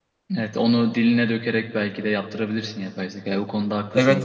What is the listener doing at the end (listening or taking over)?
taking over